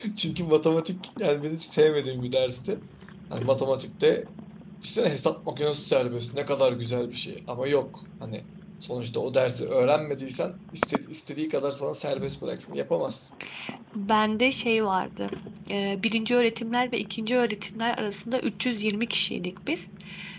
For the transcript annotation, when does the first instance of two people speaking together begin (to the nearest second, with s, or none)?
none